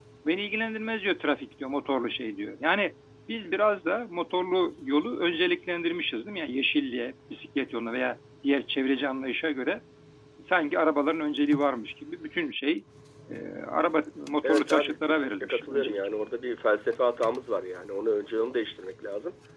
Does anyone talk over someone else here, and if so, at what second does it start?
14 s

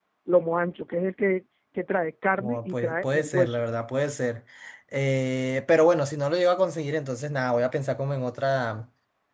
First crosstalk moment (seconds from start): 2 s

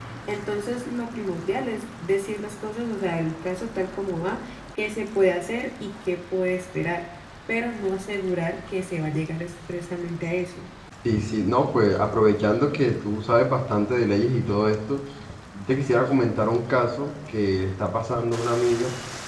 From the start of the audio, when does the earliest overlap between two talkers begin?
none

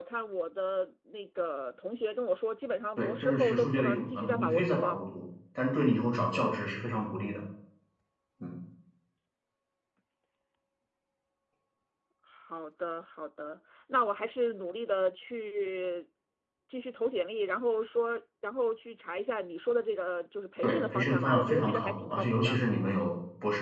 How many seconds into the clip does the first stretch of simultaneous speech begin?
3 s

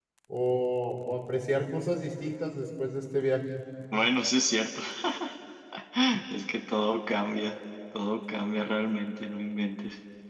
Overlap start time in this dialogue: none

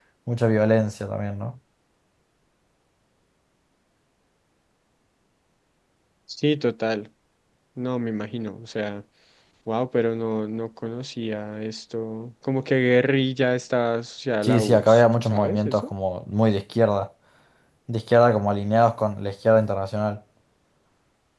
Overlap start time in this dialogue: 14 s

